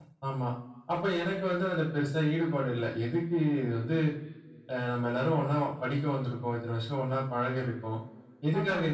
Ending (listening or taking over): listening